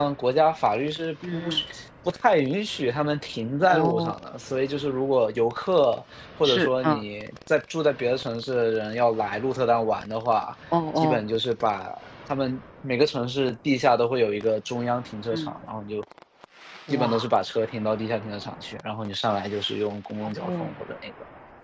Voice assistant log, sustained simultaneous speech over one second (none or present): none